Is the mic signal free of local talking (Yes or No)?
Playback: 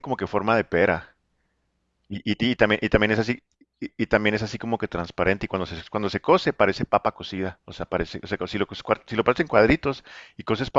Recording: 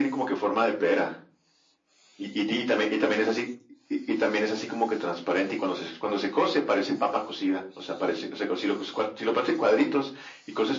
Yes